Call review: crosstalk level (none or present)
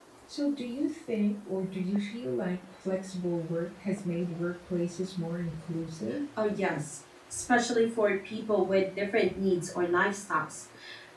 none